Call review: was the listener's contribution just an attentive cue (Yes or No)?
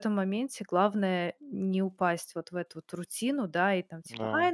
Yes